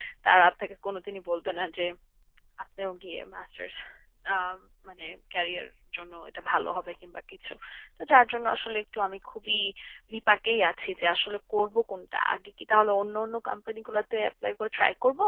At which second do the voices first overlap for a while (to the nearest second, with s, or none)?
none